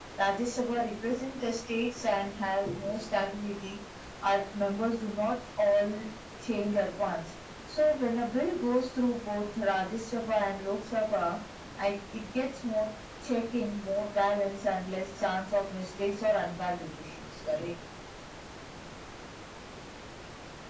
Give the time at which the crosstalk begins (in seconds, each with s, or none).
none